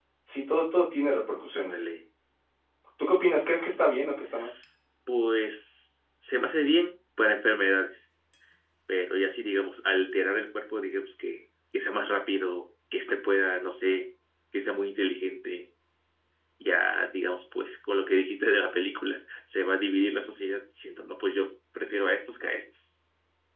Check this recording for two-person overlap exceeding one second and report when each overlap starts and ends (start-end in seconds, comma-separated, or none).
none